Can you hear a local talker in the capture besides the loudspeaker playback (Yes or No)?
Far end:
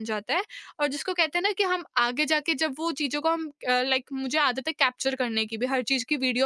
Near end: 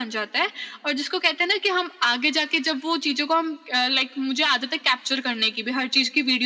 No